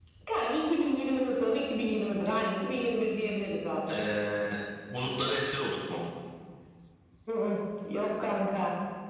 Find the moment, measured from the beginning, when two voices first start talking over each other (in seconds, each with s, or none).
none